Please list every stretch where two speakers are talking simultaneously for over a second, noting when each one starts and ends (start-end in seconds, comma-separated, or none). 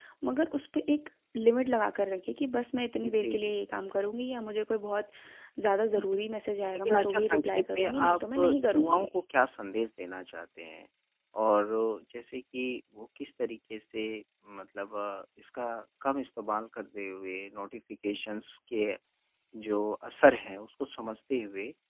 6.8-8.4